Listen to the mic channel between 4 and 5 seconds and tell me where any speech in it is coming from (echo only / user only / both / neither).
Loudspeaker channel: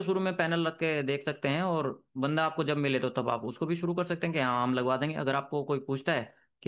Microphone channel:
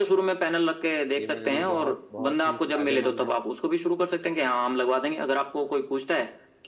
echo only